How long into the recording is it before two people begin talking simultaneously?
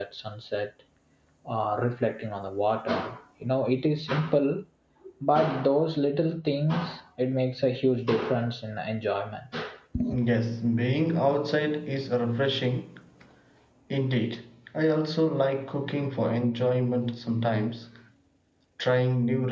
none

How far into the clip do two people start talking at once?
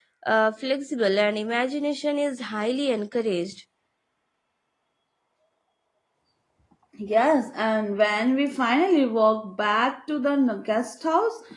none

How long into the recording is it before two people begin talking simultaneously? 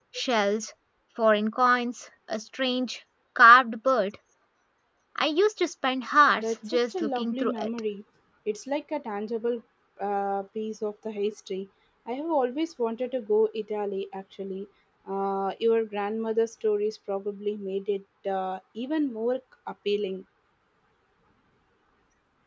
6.4 s

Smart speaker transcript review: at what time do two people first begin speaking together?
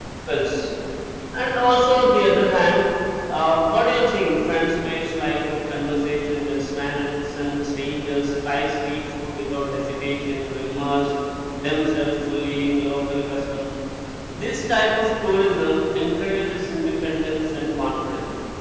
none

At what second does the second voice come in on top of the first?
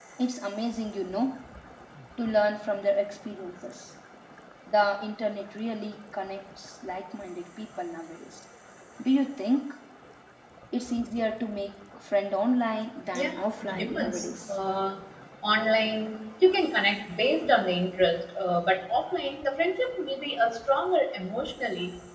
13.1 s

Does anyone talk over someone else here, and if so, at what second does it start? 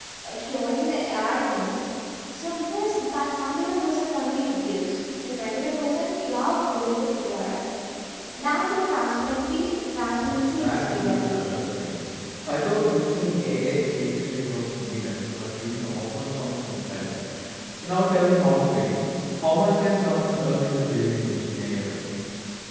10.2 s

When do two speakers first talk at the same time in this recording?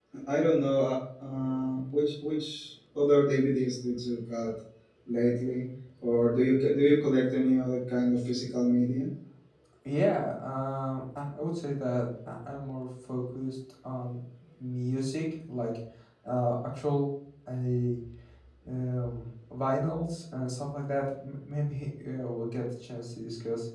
none

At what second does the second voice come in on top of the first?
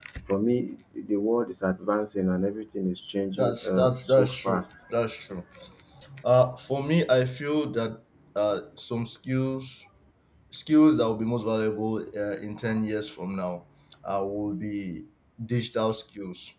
3.3 s

